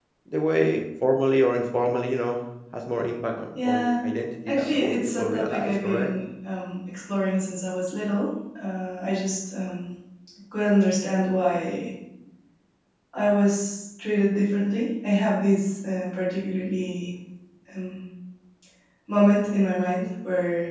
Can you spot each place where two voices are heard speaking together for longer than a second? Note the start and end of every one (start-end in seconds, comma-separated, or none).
4.5-6.1